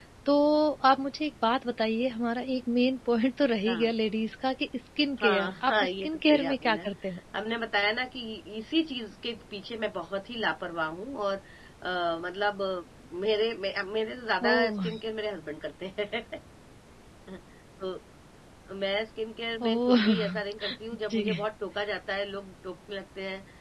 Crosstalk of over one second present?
Yes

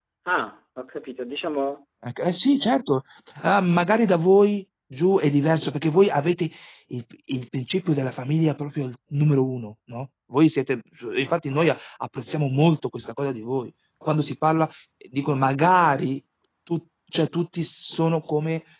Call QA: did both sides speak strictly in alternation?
Yes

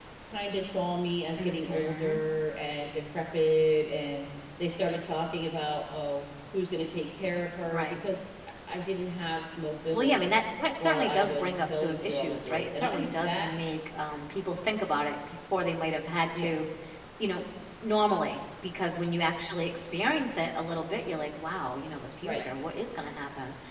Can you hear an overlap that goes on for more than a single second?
Yes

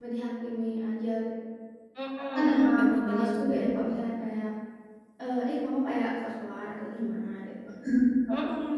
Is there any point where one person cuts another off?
Yes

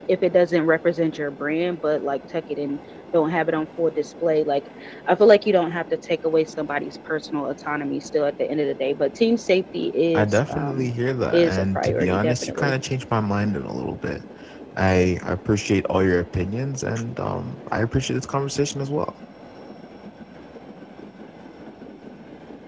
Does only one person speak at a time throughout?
No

